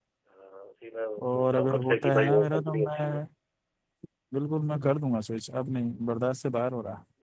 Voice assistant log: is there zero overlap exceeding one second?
No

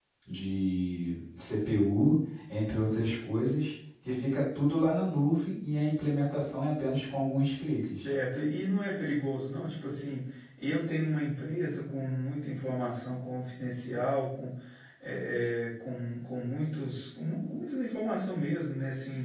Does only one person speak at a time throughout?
Yes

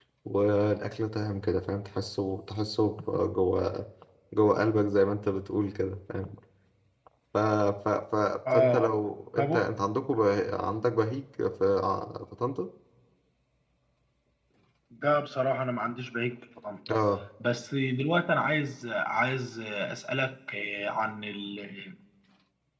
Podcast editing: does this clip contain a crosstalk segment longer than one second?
No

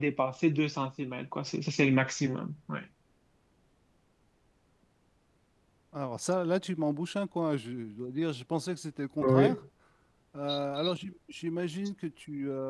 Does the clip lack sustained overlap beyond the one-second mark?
Yes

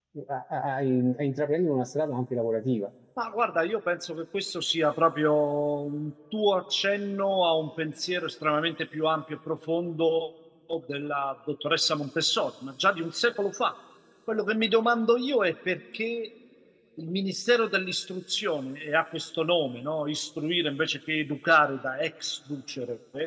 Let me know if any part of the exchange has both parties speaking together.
No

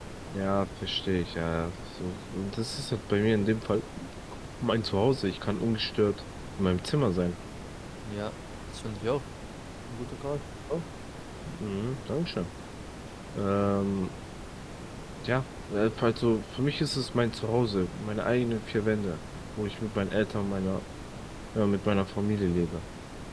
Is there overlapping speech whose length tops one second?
No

